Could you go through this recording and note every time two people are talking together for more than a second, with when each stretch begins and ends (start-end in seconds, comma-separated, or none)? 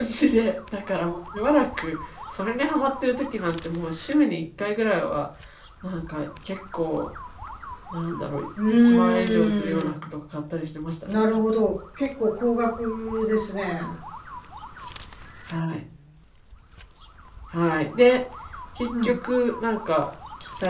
8.8-10.1